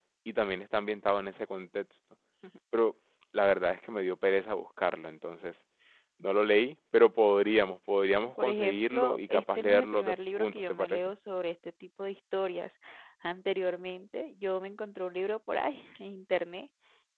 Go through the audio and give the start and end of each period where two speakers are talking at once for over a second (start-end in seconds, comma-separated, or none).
8.4-11.0